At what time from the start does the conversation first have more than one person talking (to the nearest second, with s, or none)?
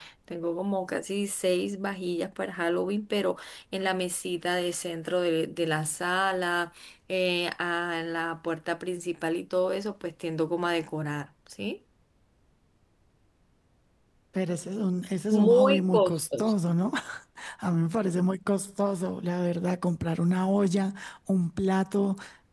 15 s